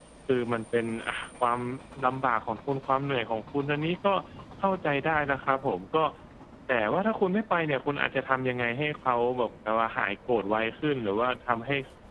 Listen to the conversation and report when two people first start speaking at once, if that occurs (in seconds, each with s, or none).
none